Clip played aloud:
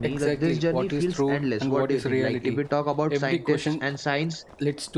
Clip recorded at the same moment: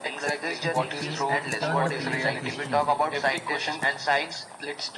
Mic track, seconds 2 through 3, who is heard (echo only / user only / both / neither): both